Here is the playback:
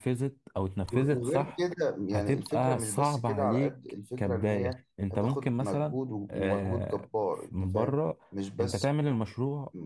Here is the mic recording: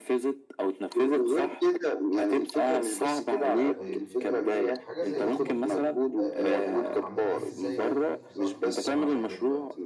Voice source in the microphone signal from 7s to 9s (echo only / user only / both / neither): both